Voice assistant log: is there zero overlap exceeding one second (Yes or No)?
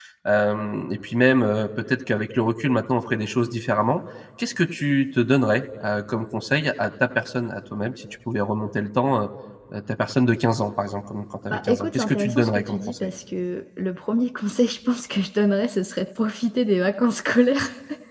No